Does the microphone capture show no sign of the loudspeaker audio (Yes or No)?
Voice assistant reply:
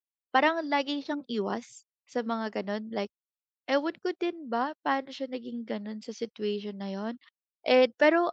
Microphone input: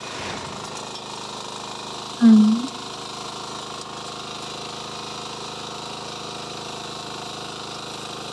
Yes